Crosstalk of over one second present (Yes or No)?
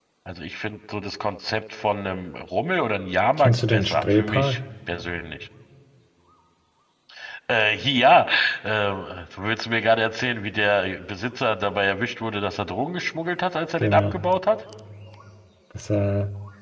Yes